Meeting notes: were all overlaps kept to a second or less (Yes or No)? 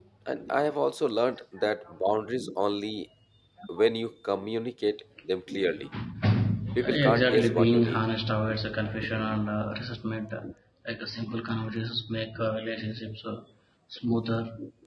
No